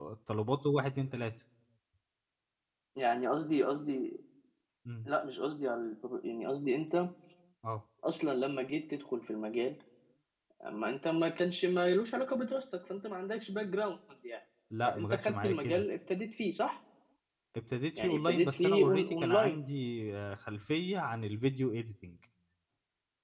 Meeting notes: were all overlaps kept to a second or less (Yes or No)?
No